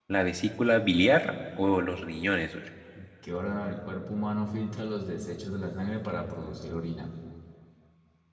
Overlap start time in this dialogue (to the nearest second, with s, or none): none